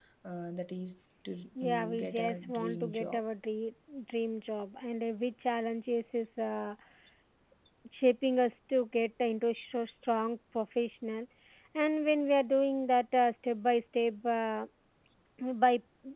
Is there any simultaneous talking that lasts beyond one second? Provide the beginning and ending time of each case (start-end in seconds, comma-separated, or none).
1.6-3.2